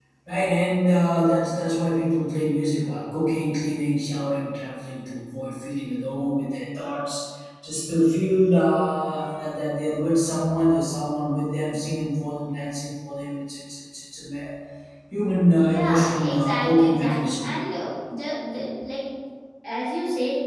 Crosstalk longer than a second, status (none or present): present